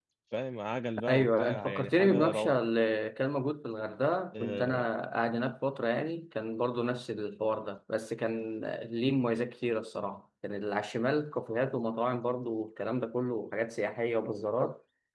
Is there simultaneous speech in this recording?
Yes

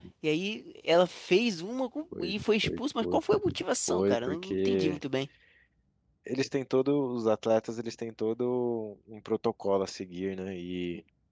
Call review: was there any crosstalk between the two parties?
Yes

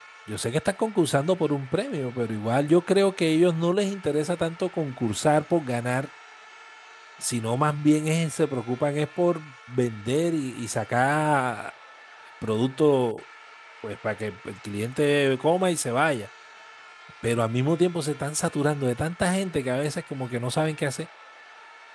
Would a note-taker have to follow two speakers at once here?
No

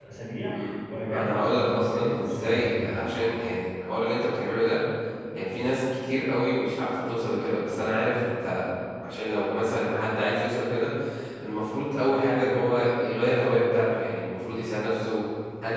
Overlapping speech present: Yes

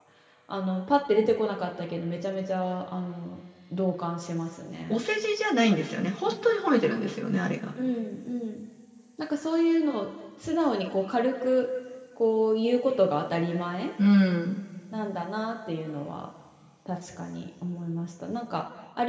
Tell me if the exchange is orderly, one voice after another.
Yes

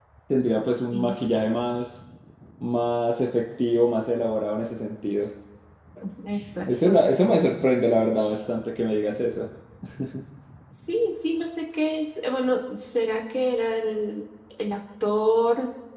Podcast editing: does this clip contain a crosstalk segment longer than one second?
No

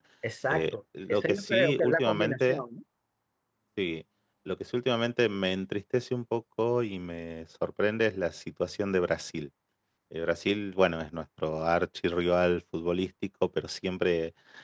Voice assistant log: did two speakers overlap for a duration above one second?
Yes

